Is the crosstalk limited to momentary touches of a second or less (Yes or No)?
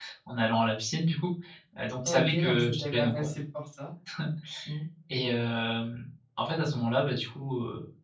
No